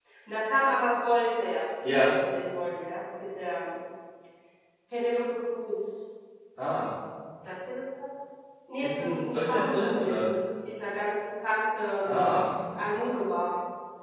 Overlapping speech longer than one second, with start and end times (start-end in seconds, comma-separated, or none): 8.8-10.3